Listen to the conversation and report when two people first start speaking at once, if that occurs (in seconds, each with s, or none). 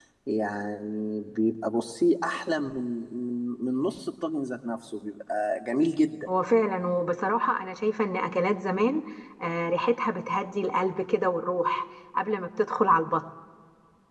none